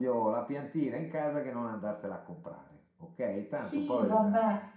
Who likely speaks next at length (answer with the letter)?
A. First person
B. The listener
B